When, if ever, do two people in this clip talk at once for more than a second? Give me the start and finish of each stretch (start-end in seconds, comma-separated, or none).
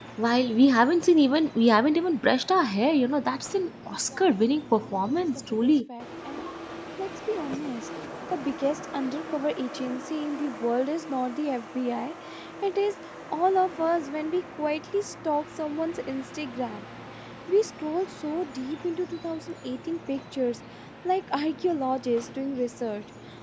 4.2-5.7